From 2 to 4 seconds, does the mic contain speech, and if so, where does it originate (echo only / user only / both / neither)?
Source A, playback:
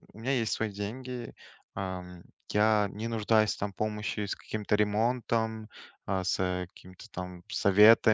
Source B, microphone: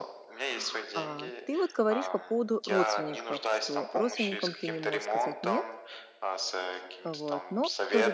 both